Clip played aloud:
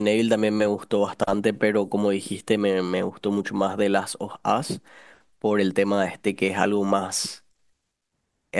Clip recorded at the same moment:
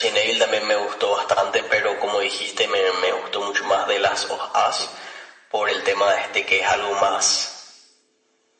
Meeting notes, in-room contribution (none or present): none